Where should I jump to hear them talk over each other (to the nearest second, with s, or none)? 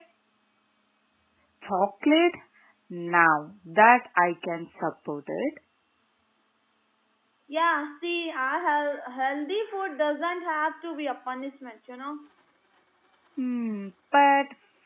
none